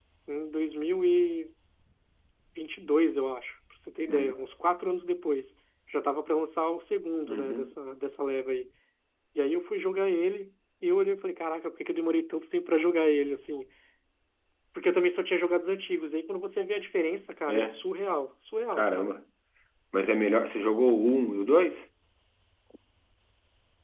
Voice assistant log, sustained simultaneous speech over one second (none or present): none